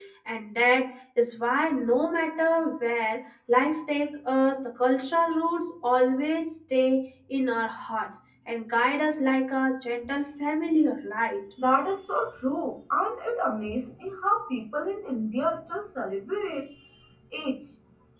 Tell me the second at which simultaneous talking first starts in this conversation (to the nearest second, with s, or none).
none